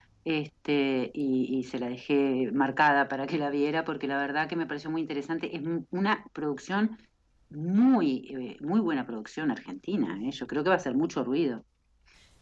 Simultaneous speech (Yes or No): No